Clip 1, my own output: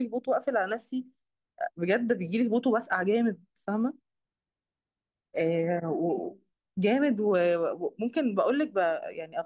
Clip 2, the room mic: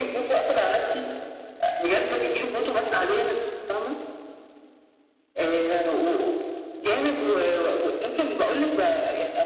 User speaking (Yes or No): No